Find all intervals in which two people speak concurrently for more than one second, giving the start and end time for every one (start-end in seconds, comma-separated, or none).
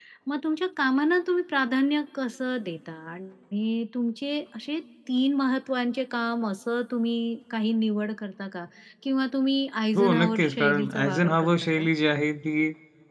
9.9-11.8